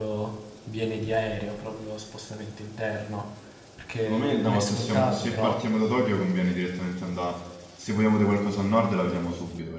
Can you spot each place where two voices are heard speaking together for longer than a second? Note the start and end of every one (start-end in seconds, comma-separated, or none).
4.0-5.6